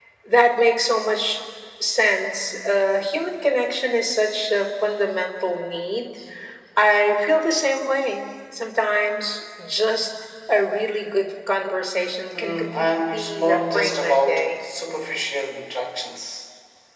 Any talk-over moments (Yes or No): Yes